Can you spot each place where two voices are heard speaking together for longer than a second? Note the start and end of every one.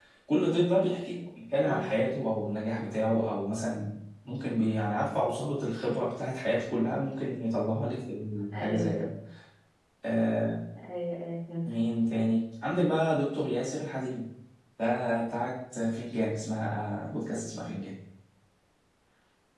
none

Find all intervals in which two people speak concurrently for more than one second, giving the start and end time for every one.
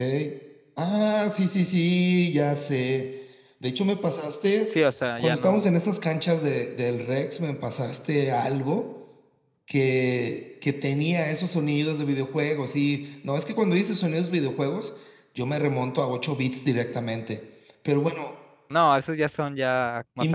none

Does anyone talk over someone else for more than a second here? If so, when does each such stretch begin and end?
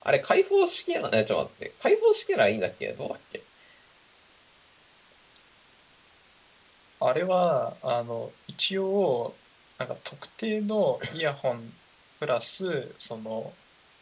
none

